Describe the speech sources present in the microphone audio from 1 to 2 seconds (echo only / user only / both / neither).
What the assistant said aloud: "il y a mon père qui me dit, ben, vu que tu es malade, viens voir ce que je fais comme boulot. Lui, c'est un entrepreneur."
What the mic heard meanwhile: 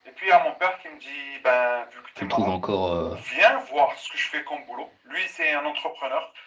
echo only